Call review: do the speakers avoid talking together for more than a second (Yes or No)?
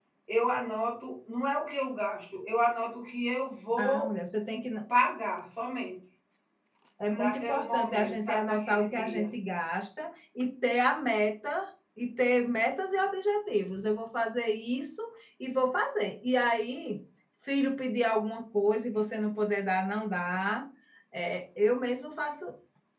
No